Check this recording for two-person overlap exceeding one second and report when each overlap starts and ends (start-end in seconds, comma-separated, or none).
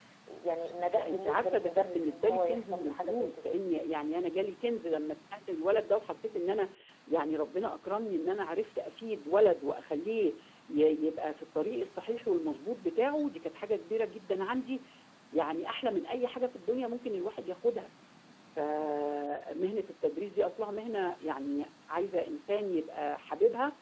0.8-3.4